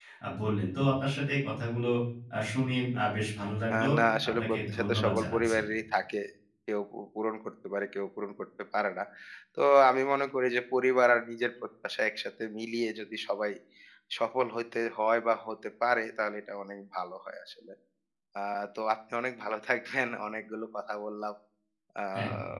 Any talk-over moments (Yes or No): Yes